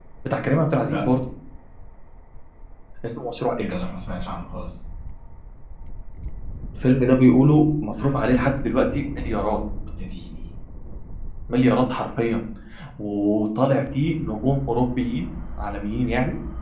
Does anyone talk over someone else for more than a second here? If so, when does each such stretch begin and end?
none

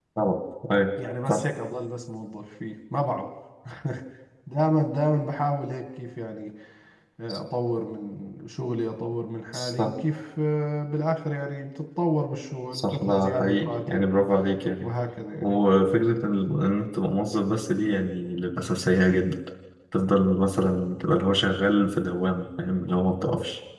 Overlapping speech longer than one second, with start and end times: 12.7-14.1

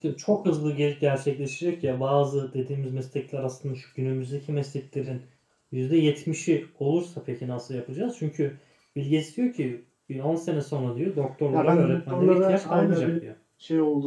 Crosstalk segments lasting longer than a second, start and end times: 11.5-13.1

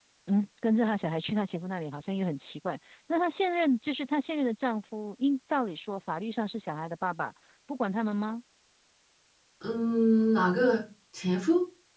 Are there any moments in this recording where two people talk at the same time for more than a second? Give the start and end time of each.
none

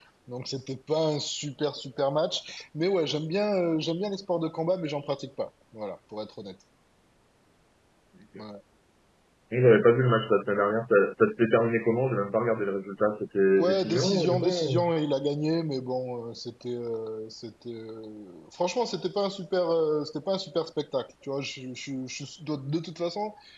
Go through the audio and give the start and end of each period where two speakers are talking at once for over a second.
13.6-14.8

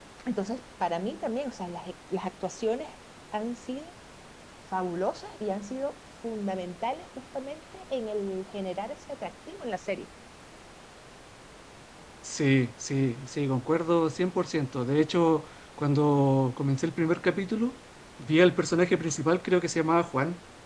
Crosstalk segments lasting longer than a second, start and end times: none

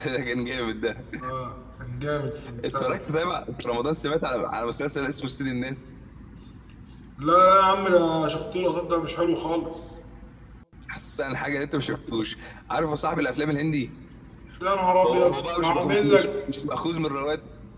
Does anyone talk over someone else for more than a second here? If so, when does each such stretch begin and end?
15.1-16.3

